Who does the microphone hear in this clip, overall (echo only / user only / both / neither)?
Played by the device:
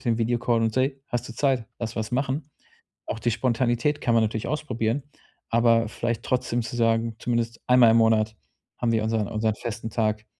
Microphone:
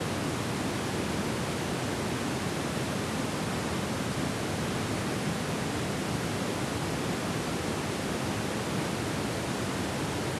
neither